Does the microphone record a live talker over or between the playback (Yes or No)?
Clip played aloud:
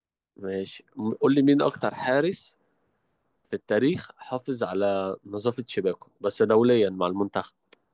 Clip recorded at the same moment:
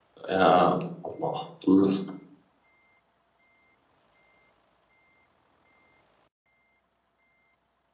Yes